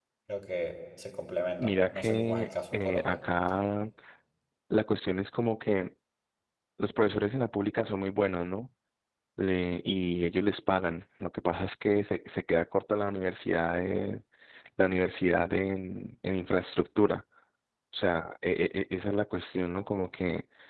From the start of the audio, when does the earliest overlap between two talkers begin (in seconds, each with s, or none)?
1.6 s